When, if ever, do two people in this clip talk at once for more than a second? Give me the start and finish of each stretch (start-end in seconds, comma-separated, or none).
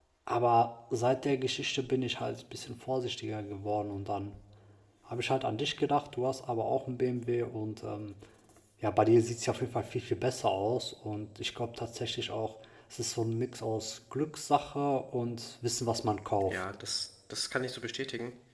none